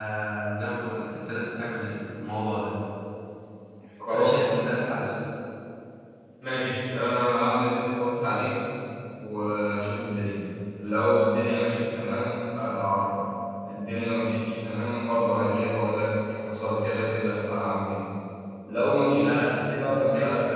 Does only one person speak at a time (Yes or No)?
No